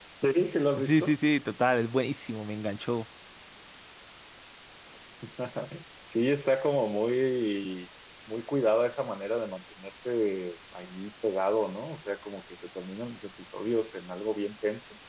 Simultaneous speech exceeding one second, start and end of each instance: none

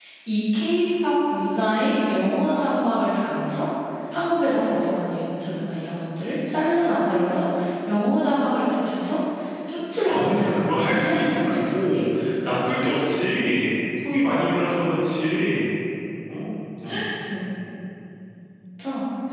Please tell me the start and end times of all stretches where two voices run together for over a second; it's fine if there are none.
10.0-12.0

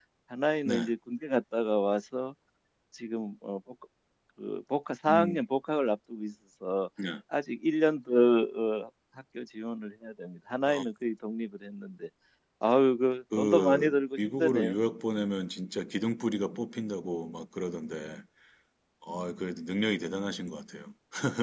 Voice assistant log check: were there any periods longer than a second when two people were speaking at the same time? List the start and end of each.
13.4-14.8

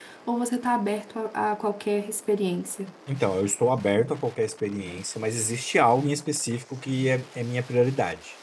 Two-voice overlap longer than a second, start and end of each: none

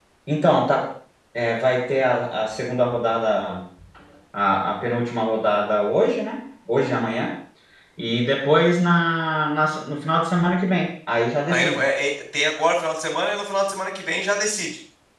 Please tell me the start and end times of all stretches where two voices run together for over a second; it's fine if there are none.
none

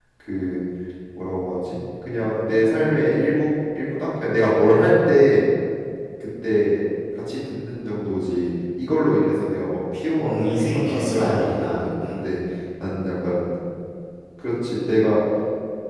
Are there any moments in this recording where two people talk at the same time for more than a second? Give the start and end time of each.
10.2-12.2

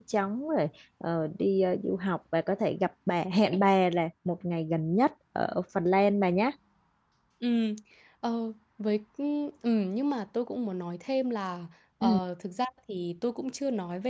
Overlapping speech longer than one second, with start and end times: none

